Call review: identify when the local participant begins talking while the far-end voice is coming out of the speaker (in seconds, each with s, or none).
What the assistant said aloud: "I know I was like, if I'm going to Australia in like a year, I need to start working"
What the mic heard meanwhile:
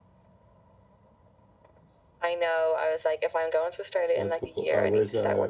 4.1 s